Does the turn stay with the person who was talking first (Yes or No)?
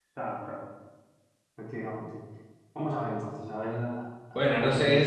No